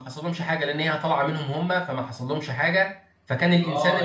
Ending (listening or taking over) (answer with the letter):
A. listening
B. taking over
B